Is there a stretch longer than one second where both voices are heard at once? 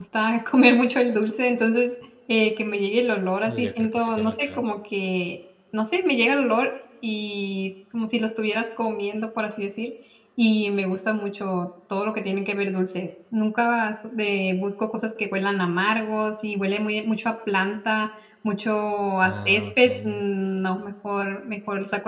Yes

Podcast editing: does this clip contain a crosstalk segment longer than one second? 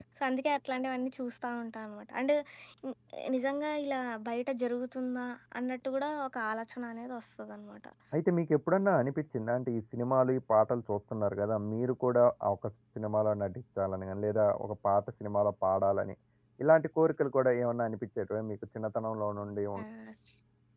No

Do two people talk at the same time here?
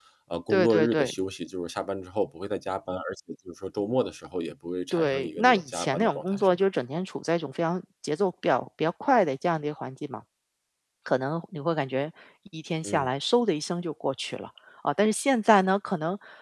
Yes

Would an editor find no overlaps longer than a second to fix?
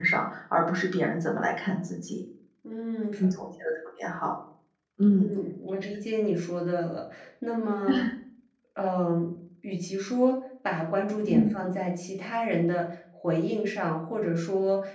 Yes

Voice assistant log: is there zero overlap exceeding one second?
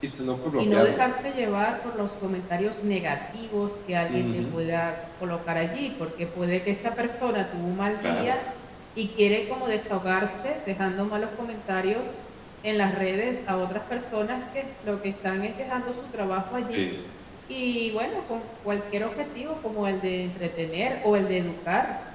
Yes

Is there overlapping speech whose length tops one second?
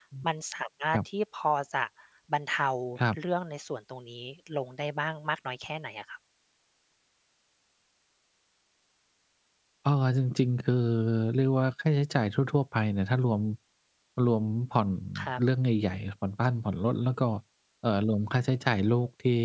No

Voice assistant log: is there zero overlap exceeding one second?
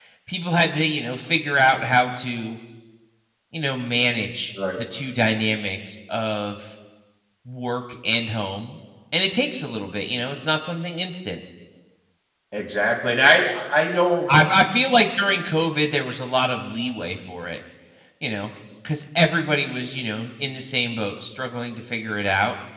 Yes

